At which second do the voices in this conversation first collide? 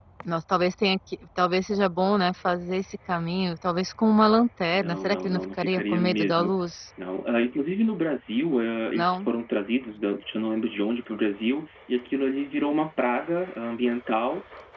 4.7 s

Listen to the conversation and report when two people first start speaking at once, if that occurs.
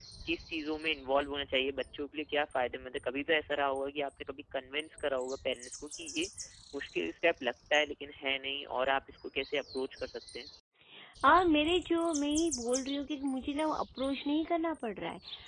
none

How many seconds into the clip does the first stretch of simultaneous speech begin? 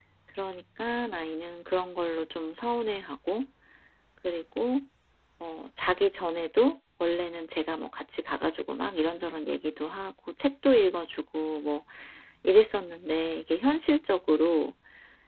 none

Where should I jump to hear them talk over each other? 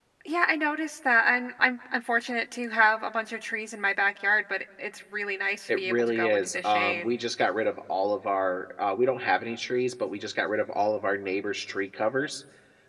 5.7 s

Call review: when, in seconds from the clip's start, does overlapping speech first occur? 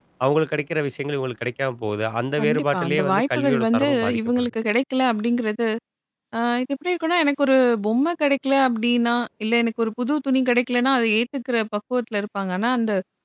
2.4 s

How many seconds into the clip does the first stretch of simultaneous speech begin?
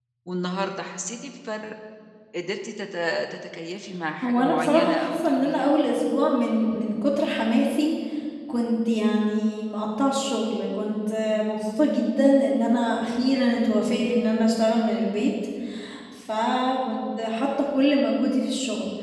4.2 s

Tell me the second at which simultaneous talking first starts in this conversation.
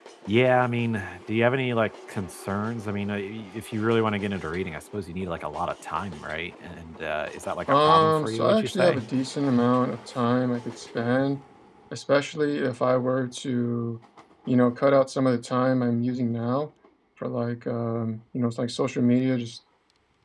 7.7 s

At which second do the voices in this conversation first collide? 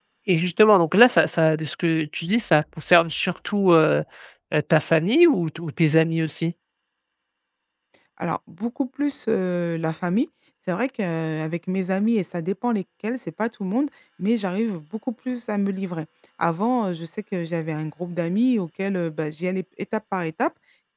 none

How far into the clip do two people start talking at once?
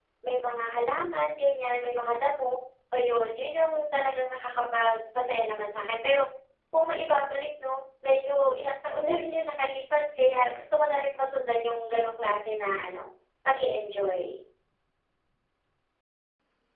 none

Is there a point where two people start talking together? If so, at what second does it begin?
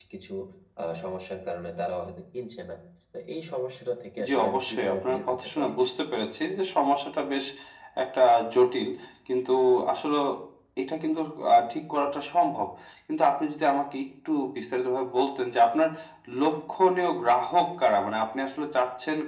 4.2 s

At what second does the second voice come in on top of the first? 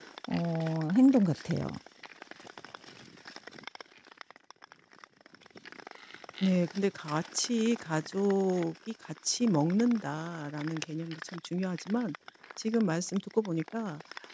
none

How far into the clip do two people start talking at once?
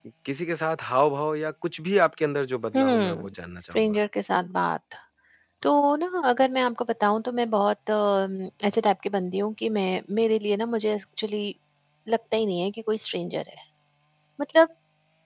2.7 s

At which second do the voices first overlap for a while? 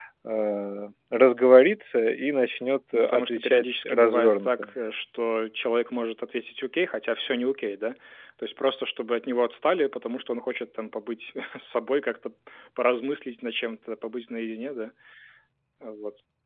2.9 s

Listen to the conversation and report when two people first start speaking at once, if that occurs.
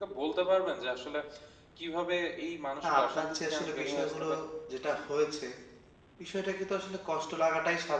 2.8 s

